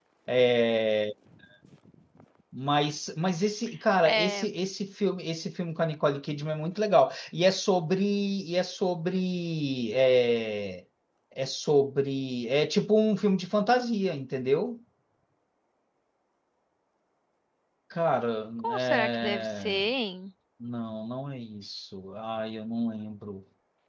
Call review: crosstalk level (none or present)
present